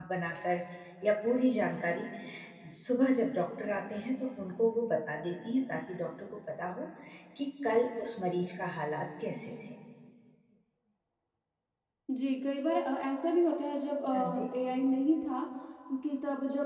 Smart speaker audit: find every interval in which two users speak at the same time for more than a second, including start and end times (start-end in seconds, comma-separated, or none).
none